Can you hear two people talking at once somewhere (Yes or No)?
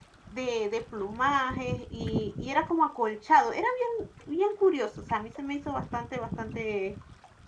No